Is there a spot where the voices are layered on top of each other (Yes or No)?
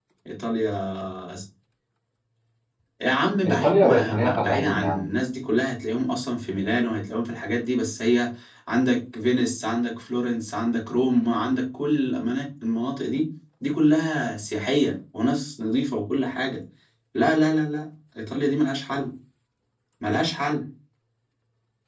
Yes